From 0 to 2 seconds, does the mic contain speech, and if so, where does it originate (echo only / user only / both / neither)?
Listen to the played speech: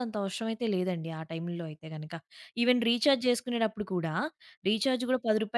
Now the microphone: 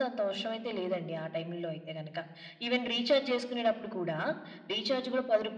echo only